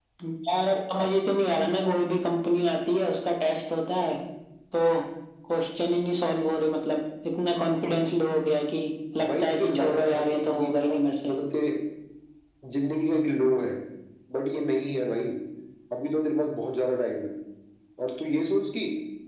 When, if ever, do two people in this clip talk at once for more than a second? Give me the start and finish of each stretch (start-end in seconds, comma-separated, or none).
9.3-11.3